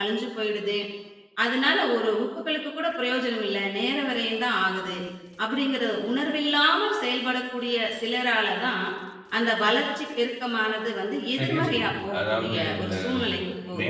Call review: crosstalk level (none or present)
present